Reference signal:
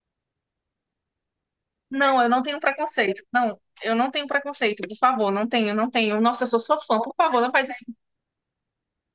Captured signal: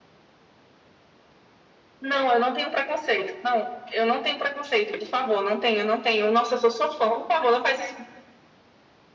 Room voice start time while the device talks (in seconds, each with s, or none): none